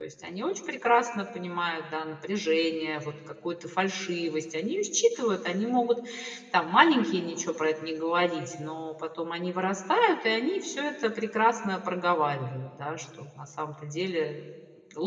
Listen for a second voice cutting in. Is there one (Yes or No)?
No